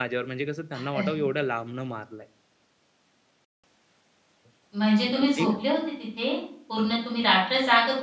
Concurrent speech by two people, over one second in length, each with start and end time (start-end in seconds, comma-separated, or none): none